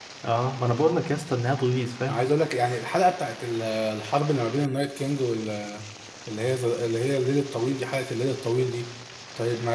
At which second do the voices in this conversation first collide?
none

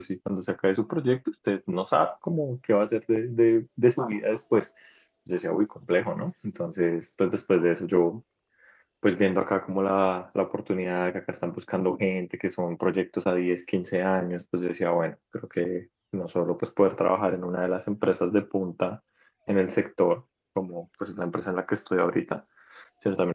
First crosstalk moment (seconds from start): none

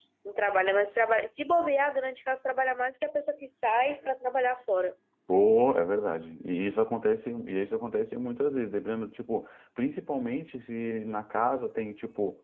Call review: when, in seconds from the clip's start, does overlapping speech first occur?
none

